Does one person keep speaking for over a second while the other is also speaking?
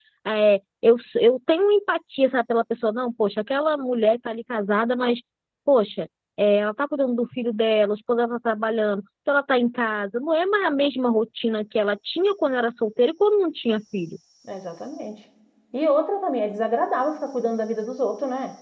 No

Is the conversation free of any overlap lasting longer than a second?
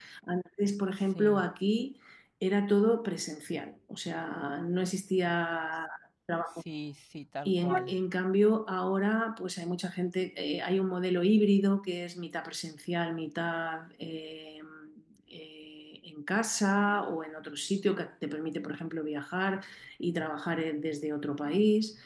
Yes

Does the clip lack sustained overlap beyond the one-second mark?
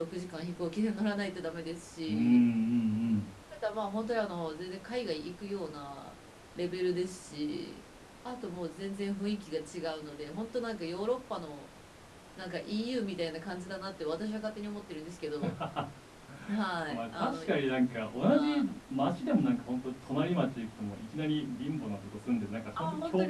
No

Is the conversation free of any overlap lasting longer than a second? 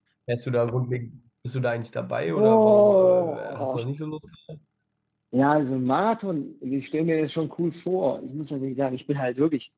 No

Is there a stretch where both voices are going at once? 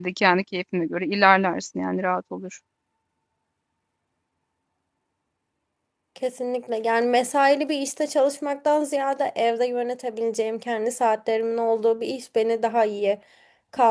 No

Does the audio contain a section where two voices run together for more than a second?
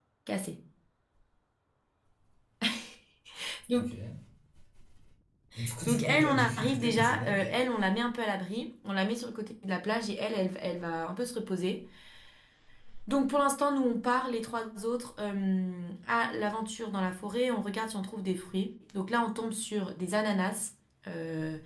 Yes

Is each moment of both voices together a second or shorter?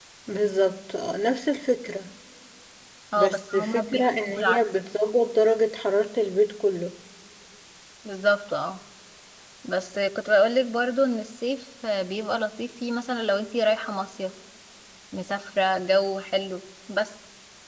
No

